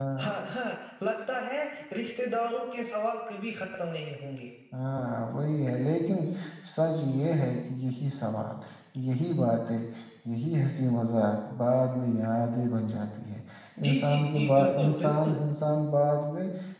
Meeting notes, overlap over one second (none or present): present